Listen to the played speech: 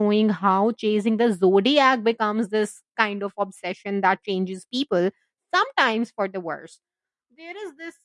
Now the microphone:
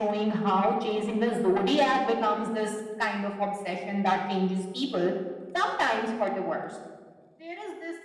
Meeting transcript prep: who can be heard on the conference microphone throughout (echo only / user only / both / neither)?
echo only